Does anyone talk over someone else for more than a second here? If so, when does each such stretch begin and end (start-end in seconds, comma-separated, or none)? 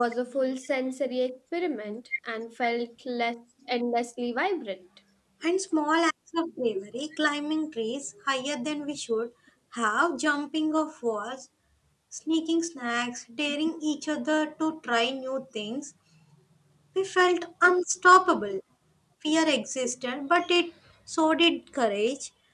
none